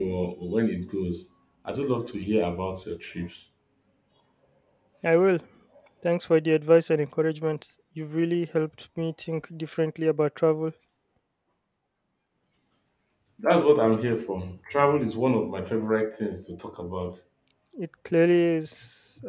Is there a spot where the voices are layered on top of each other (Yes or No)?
No